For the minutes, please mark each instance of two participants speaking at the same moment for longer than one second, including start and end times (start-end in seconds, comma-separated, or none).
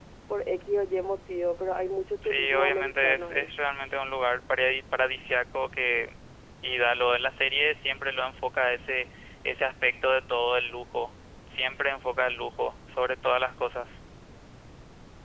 2.2-3.5